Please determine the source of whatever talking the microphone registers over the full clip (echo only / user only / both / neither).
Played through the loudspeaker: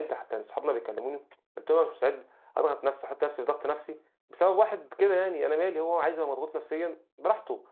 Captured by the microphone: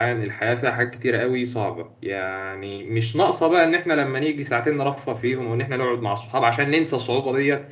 user only